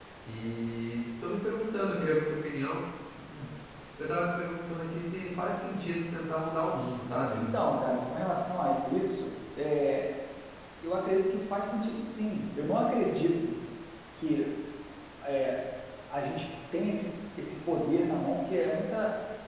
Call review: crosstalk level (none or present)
none